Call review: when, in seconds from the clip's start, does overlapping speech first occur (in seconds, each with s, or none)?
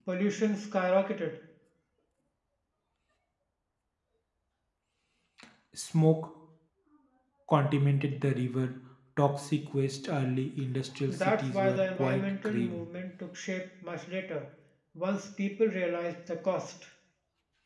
11.1 s